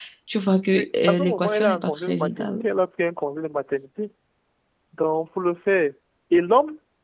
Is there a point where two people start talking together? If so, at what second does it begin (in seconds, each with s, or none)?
0.7 s